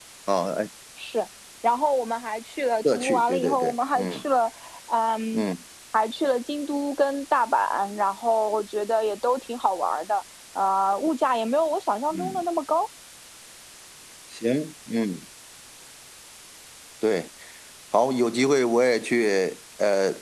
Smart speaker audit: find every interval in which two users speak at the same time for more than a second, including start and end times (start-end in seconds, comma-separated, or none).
2.8-4.2